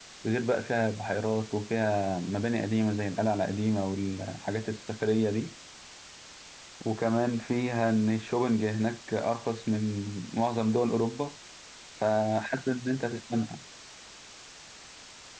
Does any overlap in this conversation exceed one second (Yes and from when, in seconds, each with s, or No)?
No